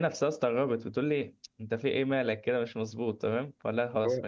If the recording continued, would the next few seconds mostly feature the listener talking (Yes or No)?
No